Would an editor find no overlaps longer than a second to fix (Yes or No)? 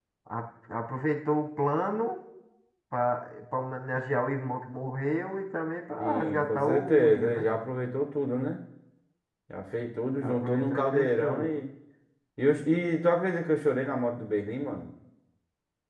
No